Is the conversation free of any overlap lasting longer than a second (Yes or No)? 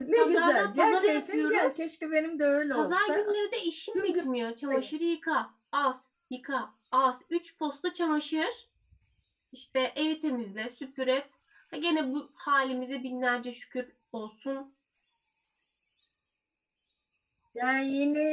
No